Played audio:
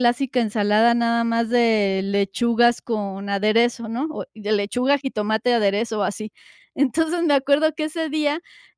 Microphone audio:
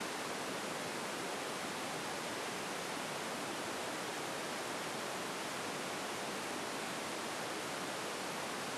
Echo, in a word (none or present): none